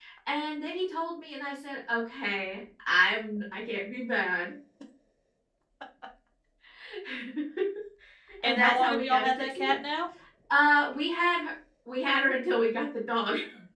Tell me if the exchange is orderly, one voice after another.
No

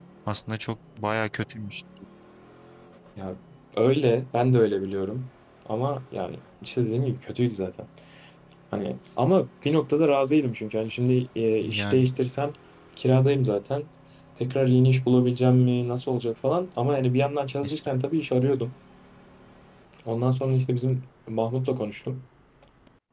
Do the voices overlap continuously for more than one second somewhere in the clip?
No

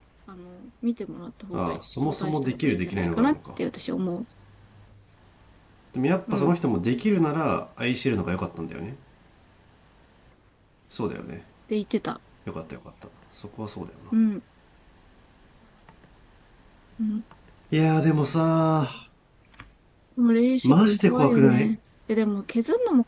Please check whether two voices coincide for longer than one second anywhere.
Yes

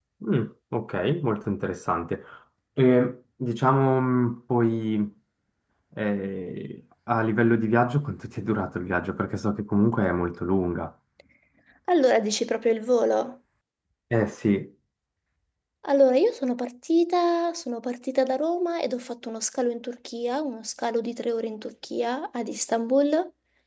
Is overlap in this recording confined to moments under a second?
Yes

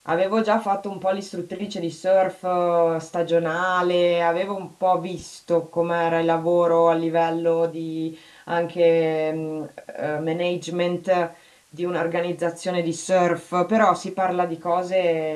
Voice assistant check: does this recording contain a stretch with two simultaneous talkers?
No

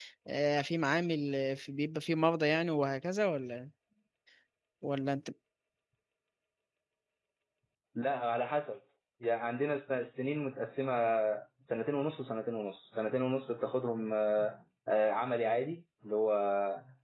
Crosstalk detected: No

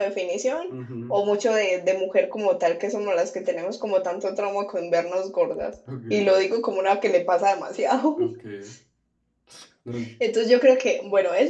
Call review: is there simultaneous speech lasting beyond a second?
No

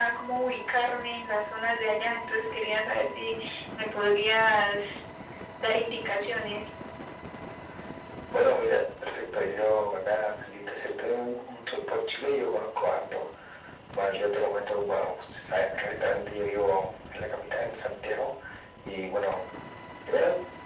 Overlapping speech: No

